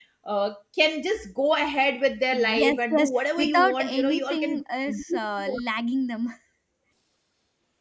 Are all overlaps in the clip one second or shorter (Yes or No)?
No